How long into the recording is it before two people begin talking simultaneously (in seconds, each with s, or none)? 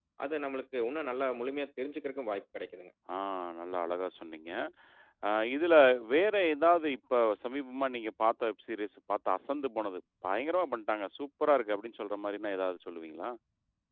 none